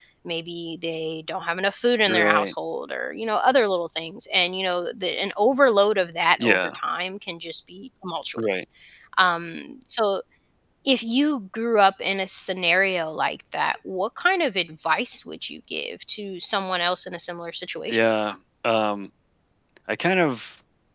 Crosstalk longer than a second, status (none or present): none